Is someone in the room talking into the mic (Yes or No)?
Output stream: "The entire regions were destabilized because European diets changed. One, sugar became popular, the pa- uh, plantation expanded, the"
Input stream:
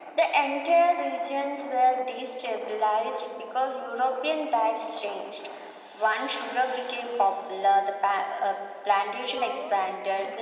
Yes